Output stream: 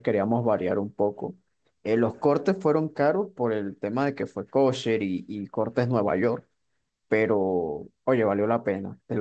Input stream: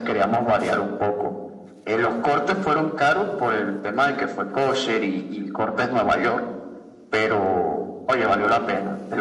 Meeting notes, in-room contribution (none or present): none